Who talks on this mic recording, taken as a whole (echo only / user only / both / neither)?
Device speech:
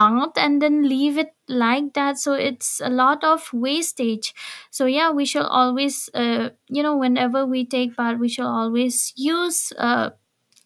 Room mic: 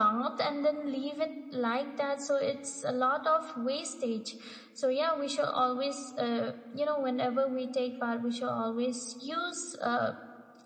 echo only